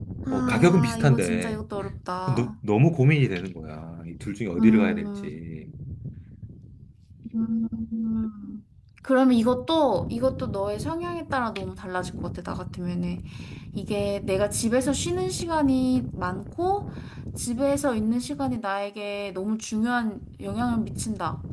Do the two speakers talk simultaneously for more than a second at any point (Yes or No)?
Yes